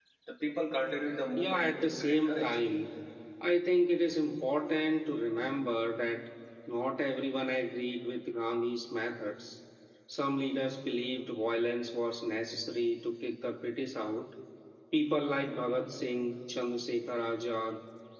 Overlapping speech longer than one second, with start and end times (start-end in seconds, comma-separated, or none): 1.4-2.6